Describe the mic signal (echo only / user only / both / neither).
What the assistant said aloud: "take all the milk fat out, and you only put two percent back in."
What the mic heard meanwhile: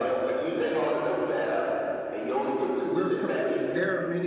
both